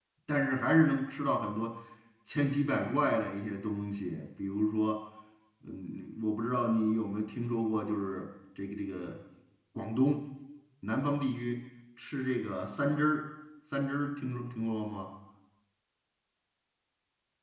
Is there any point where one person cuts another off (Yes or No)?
No